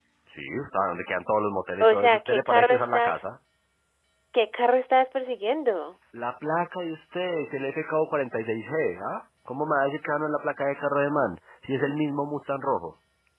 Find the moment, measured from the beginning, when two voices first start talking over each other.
2 s

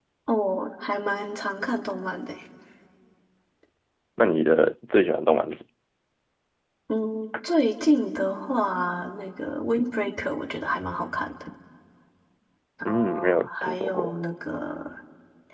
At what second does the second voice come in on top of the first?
13 s

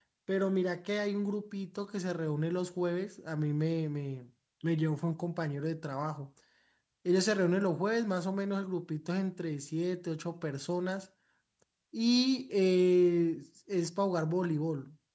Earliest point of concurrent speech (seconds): none

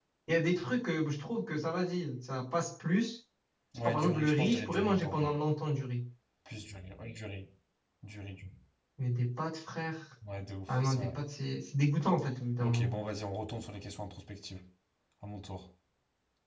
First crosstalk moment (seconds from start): 4 s

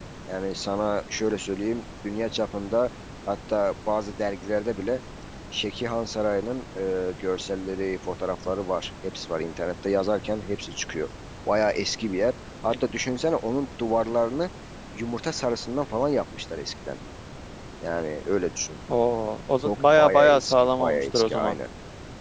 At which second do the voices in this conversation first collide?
20 s

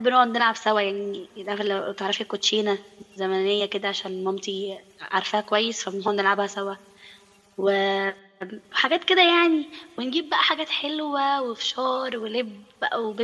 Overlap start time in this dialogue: none

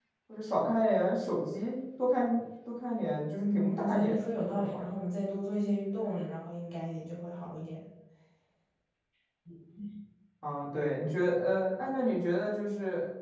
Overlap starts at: 3 s

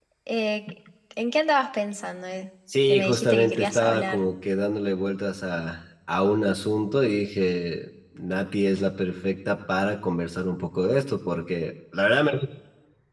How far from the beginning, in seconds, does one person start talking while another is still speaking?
3 s

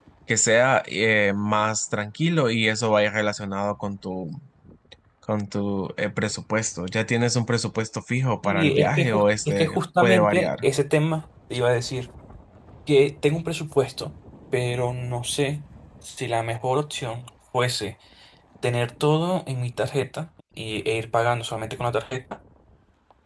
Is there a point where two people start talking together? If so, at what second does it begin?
8 s

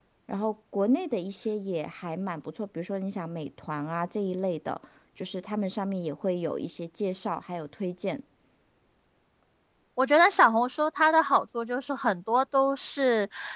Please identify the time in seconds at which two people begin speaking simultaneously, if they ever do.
none

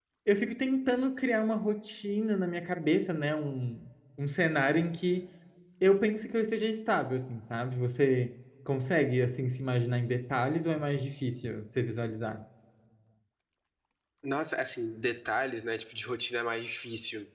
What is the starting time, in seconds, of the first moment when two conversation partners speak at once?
none

